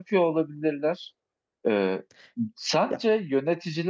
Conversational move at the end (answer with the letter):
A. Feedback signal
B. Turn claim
A